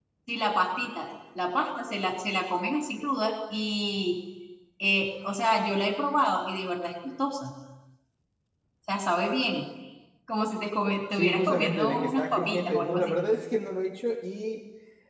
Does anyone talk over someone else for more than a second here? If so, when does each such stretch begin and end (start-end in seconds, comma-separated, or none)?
11.1-13.2